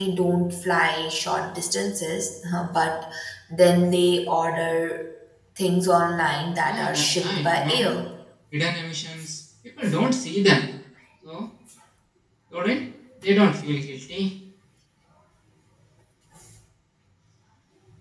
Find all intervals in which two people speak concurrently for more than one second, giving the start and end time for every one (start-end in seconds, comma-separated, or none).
6.7-7.9